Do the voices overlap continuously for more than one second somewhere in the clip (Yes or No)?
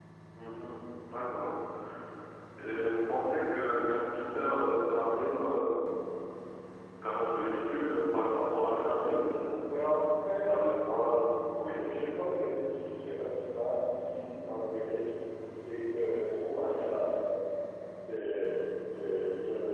No